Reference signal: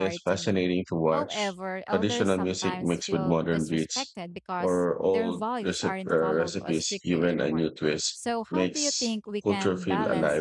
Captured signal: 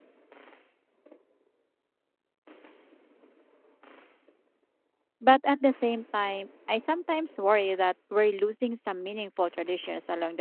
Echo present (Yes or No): No